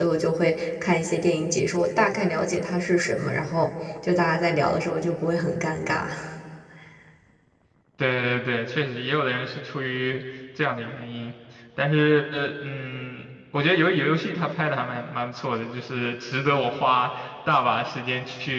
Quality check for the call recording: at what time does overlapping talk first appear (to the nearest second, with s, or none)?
none